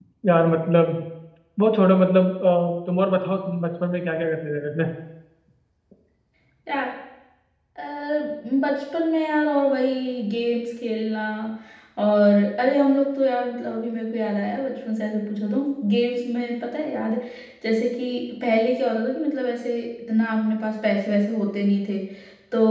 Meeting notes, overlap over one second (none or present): none